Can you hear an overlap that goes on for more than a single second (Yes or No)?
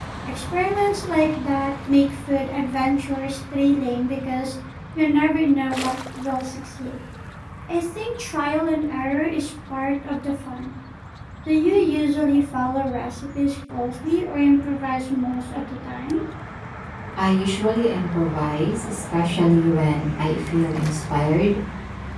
No